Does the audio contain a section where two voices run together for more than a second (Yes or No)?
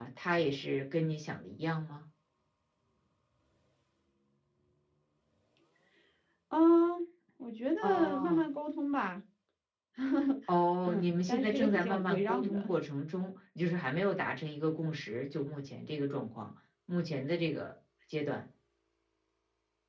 Yes